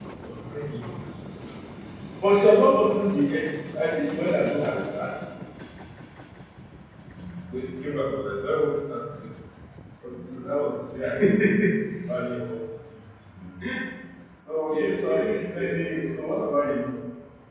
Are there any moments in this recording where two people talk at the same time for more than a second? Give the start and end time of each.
14.7-16.1

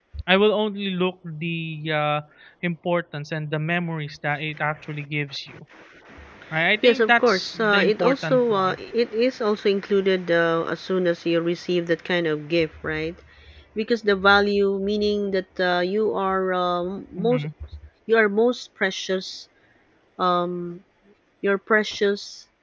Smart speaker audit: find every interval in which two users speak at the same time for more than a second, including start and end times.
6.8-8.8

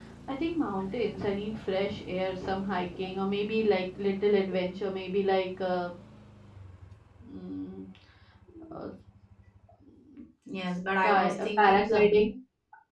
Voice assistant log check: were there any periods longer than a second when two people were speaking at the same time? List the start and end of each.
11.0-12.2

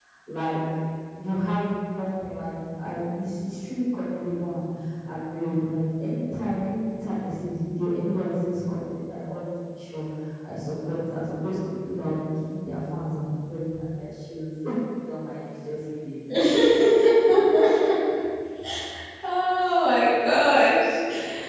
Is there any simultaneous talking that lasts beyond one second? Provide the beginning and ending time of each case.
none

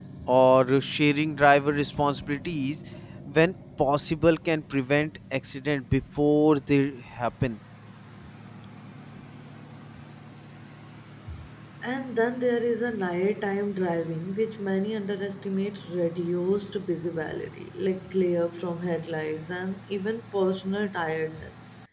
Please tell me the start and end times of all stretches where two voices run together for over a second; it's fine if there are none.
none

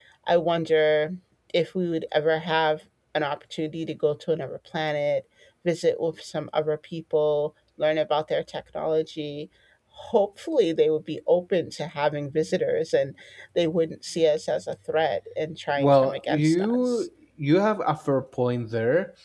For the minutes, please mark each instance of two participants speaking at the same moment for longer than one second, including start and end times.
15.8-17.0

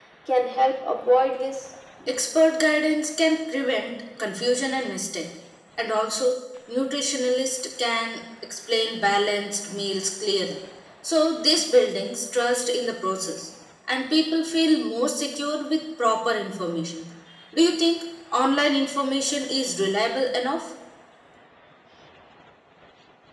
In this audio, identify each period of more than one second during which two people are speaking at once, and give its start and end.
none

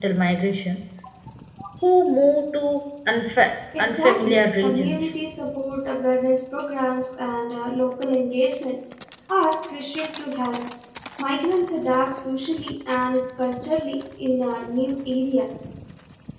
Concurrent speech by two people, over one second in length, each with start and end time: 3.8-5.1

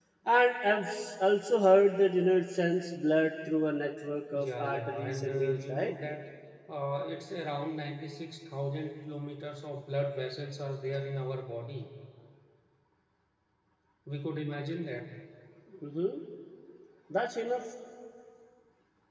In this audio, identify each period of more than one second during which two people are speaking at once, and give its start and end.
4.3-5.9

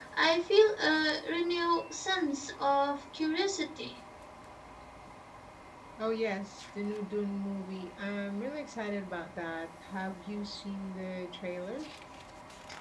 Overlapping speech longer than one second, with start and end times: none

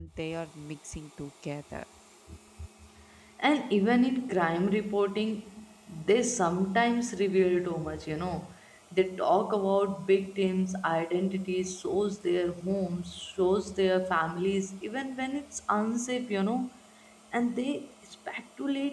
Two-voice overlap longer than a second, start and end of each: none

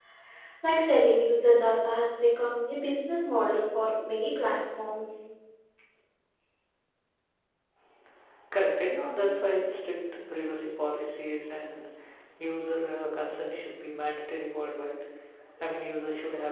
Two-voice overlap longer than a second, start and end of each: none

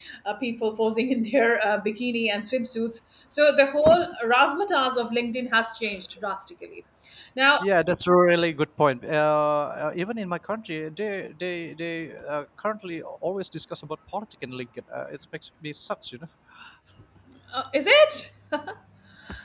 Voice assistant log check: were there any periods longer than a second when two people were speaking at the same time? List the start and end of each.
none

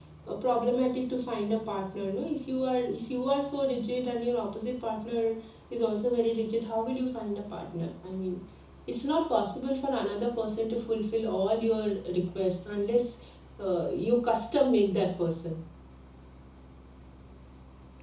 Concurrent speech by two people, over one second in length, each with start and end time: none

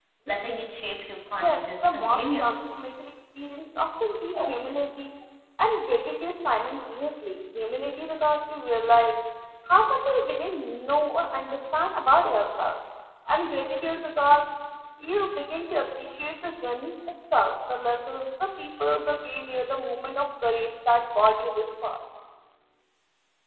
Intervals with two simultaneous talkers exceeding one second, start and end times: 1.4-2.8

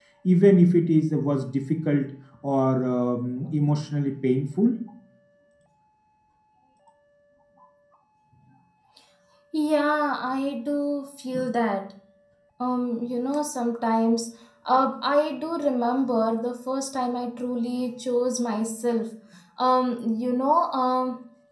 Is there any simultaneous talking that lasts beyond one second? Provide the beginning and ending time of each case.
none

